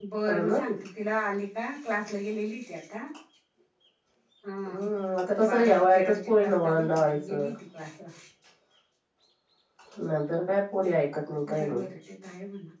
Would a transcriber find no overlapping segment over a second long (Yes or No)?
No